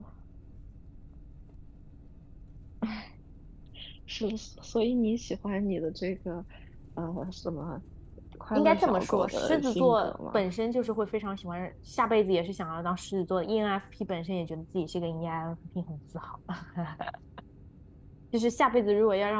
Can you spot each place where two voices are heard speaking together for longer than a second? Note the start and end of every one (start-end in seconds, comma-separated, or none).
8.5-10.5